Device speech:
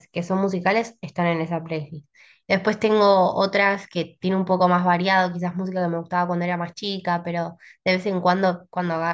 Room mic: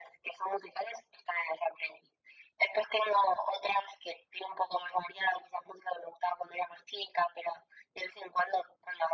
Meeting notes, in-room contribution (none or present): none